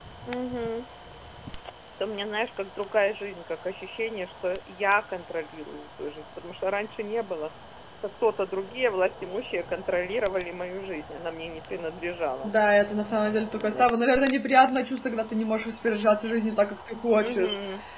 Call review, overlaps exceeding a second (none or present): none